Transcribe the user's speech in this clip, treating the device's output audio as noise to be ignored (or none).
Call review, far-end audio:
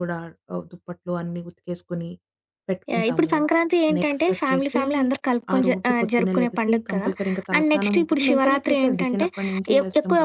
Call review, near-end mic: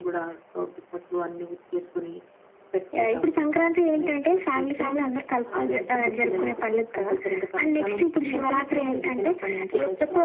అంతే. ఇంకా